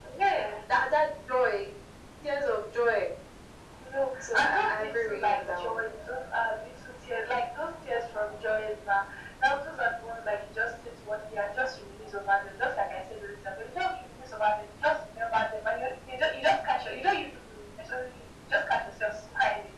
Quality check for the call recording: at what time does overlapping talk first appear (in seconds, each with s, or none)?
4.3 s